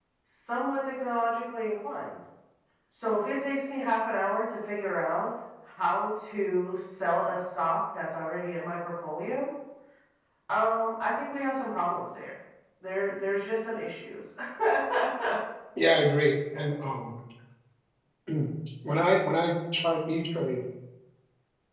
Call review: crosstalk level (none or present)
none